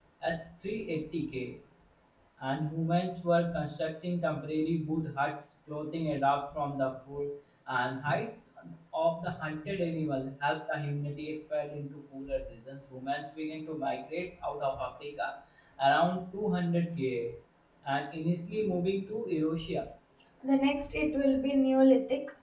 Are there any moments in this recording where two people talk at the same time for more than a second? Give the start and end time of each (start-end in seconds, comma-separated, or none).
none